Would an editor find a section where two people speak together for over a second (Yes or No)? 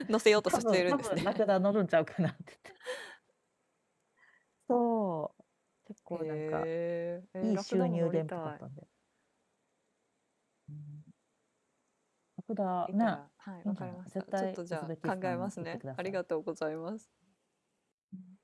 Yes